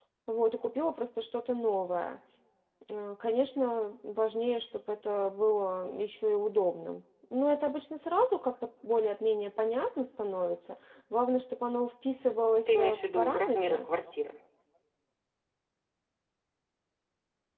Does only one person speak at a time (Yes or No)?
No